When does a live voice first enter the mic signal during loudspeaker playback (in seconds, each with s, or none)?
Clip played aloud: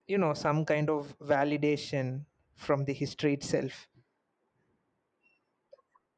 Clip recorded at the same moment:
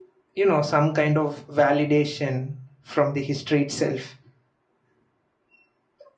none